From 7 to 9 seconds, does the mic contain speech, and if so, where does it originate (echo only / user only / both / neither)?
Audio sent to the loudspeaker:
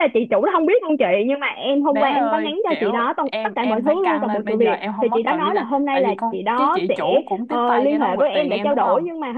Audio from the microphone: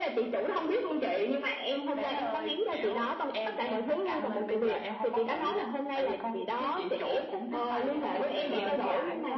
both